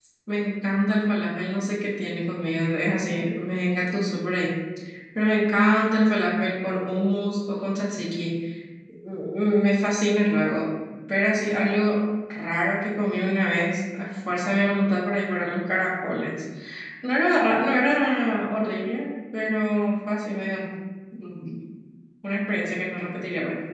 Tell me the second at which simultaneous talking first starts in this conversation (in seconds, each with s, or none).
none